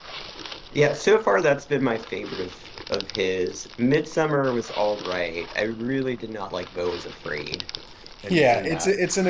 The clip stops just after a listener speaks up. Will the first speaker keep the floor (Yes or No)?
No